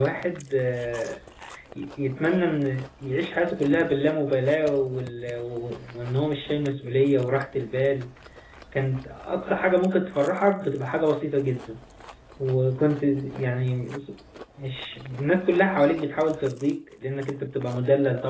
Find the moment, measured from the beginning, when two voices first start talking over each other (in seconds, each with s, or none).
none